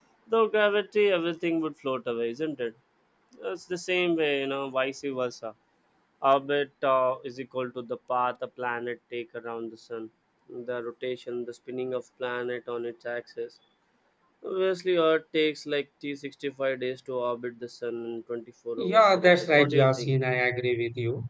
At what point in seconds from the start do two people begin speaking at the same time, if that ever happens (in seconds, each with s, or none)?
18.8 s